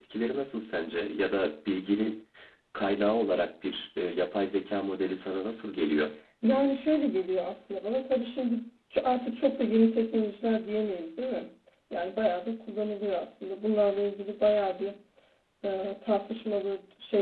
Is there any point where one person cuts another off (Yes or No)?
No